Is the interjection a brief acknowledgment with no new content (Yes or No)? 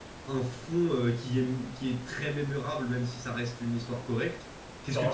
Yes